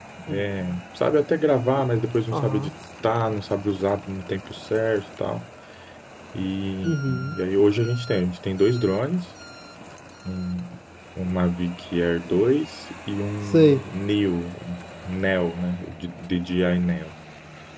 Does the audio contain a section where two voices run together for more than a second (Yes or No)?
No